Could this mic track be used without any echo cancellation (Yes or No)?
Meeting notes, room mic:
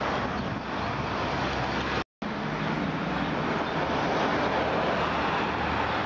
Yes